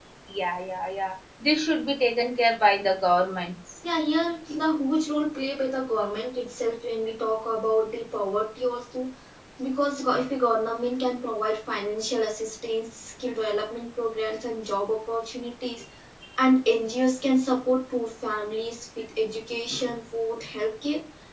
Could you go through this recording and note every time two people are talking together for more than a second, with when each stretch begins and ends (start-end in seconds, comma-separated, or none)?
none